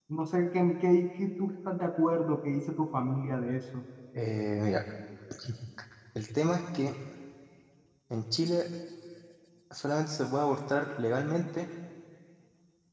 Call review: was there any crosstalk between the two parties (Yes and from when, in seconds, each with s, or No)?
No